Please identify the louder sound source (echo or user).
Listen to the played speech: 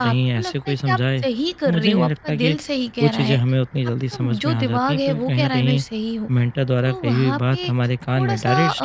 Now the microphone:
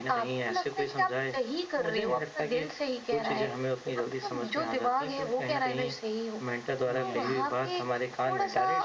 echo